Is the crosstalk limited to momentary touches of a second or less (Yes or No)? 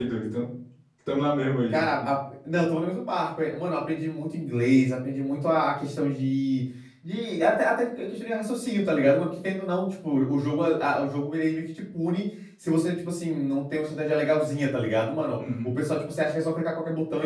Yes